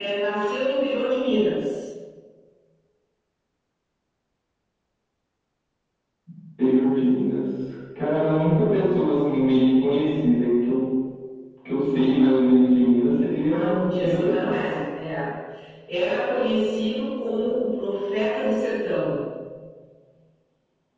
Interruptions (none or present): present